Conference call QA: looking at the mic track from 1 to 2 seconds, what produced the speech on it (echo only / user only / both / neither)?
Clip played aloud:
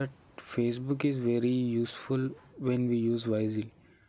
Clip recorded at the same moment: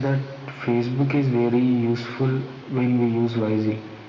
echo only